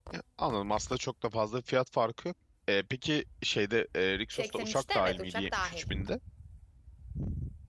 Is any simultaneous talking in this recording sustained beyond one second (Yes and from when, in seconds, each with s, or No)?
Yes, from 4.3 s